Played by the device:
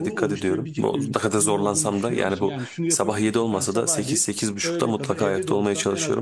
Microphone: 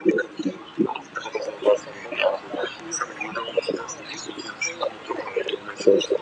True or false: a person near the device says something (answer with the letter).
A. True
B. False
B